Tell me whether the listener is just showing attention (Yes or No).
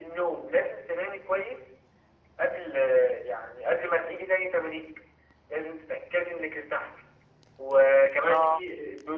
Yes